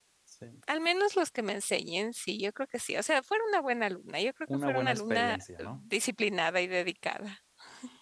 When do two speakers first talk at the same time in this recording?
4.5 s

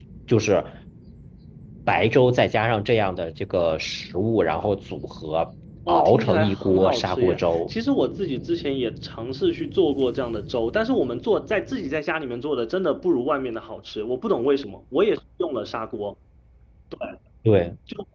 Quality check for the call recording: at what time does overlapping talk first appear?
5.9 s

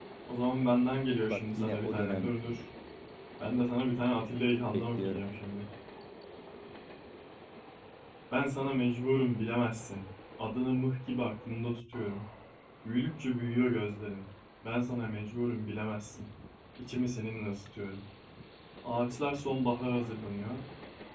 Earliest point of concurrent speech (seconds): 1.2 s

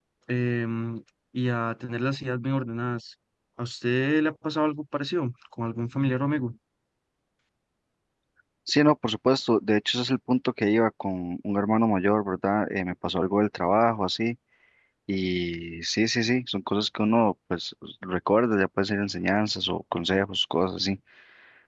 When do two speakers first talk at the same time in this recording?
none

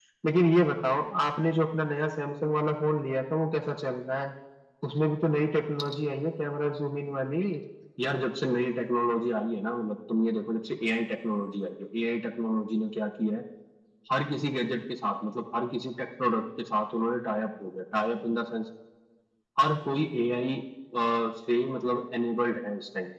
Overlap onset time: none

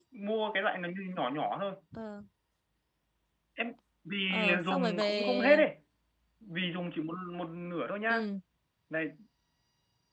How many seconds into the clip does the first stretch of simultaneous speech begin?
4.3 s

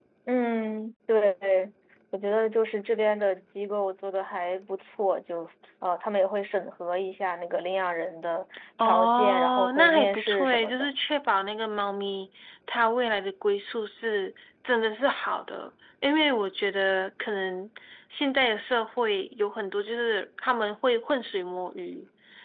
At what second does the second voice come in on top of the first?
8.8 s

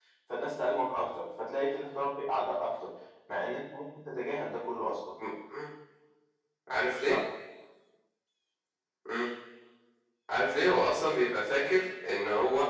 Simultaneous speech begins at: none

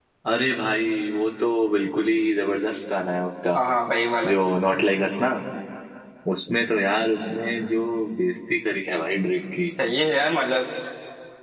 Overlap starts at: none

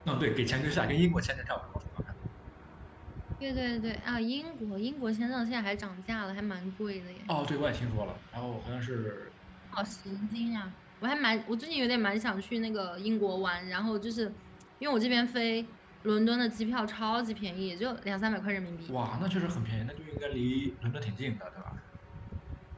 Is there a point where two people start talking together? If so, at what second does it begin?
none

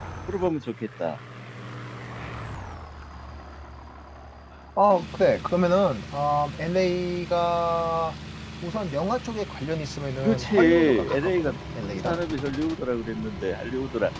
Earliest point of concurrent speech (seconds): 10.2 s

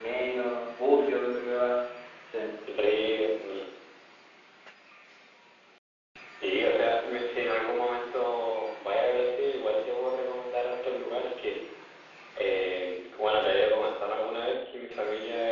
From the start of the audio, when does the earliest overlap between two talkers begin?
none

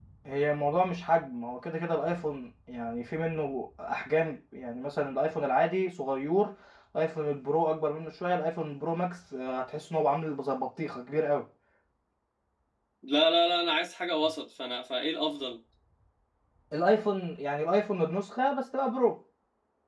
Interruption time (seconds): none

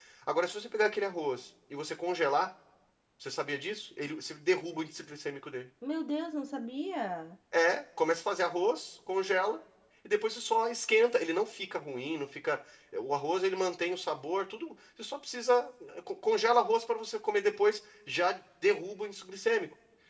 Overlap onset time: none

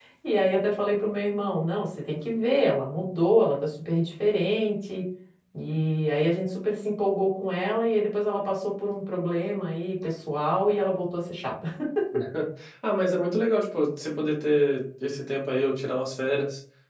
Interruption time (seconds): none

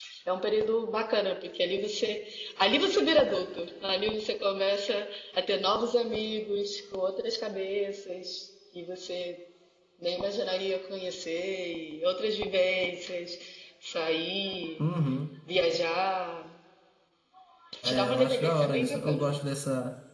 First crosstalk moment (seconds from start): 17.9 s

